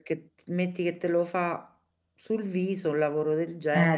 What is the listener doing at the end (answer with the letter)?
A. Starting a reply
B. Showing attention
A